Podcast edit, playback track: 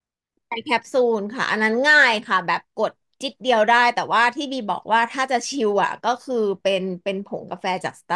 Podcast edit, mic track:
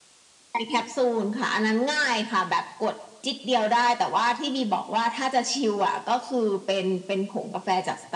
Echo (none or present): present